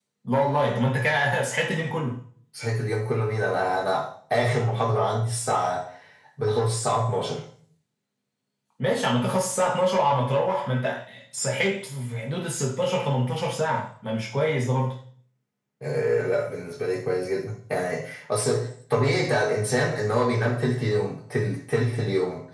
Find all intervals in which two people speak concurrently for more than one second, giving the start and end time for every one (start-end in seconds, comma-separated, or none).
none